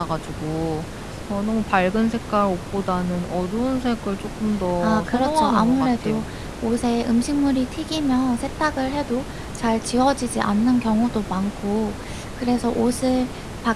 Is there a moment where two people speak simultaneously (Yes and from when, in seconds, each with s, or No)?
Yes, from 4.8 s